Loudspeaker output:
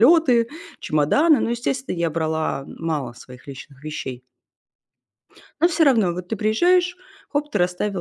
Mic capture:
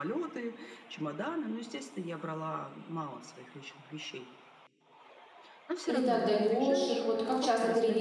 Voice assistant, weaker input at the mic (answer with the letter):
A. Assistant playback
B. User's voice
A